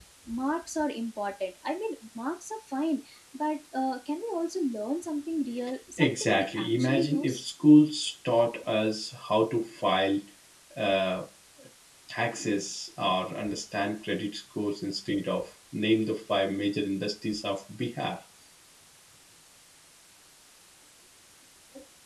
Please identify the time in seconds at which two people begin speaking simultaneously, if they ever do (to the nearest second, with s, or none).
6 s